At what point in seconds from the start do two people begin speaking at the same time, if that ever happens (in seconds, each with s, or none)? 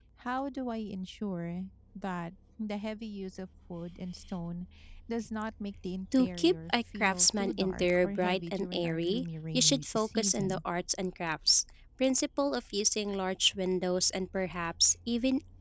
6.1 s